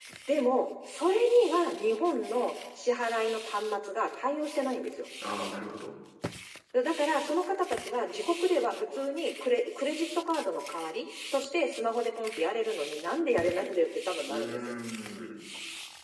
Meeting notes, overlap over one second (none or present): none